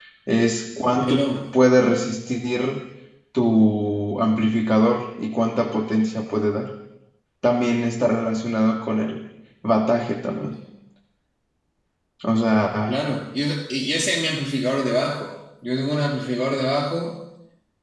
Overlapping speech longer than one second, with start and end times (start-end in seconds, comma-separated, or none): none